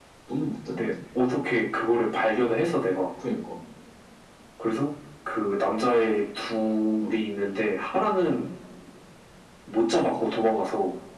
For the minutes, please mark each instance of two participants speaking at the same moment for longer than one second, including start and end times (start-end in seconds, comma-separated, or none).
none